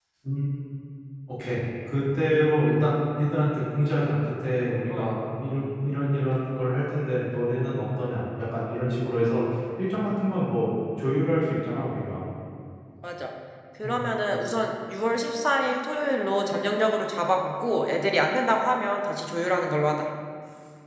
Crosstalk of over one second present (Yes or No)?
No